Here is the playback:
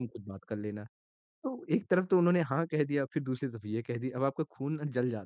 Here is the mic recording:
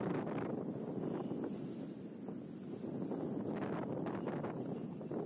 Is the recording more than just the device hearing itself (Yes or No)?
No